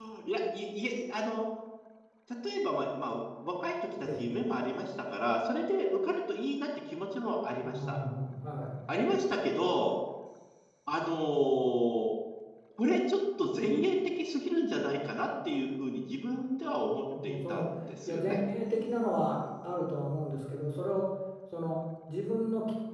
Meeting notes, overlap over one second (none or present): none